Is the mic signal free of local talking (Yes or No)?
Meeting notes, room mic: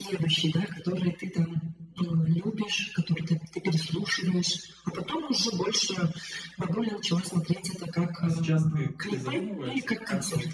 No